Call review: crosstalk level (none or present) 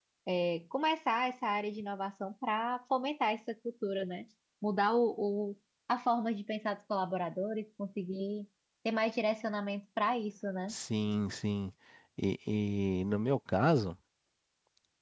none